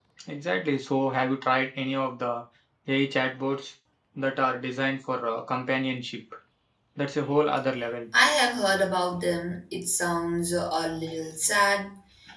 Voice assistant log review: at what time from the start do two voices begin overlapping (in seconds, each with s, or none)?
none